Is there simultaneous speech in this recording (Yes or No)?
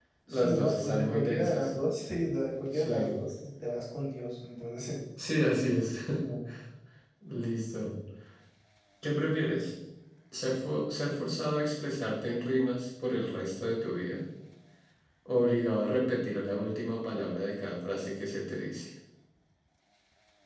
Yes